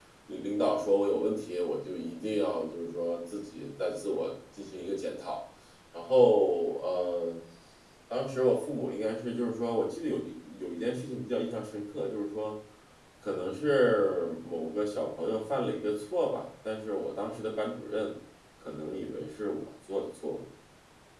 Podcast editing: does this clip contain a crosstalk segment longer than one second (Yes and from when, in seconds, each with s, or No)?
No